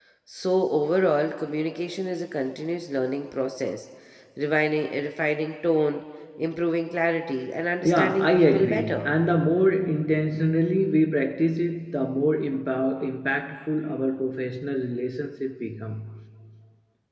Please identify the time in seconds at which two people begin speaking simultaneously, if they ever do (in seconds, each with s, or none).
7.8 s